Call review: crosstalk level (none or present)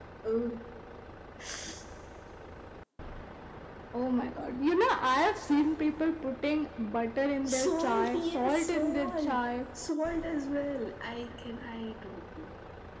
present